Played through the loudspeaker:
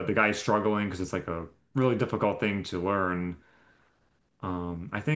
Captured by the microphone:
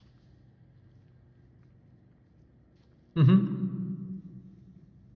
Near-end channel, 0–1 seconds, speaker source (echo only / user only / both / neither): neither